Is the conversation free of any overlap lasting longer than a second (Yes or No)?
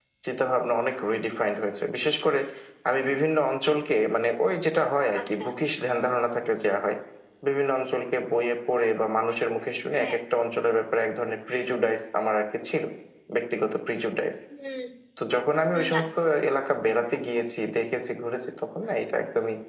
Yes